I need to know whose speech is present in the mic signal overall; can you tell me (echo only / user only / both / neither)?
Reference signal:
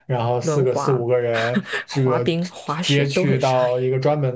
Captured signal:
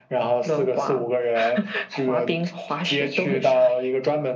echo only